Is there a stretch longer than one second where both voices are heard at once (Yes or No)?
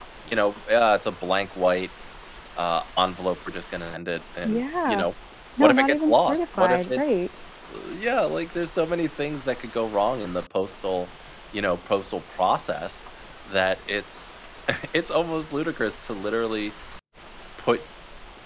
Yes